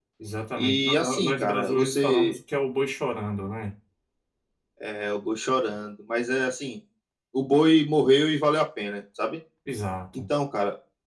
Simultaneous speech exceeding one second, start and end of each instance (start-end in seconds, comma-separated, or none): 0.6-2.4